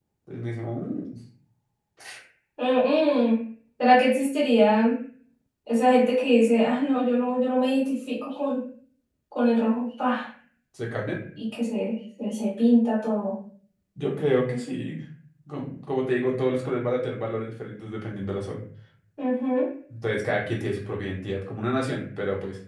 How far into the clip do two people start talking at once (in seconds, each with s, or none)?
none